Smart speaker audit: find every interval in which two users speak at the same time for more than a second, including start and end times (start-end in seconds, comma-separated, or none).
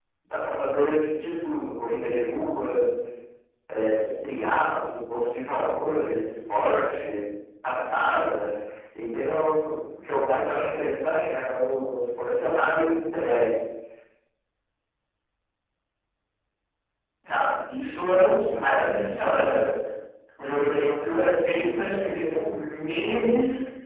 none